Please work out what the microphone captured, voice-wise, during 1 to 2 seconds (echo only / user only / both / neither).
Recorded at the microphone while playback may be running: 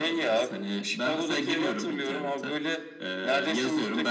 echo only